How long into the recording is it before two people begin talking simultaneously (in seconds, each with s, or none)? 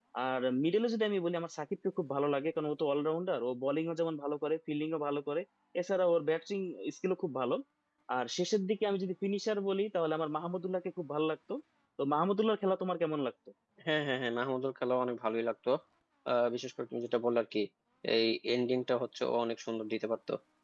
none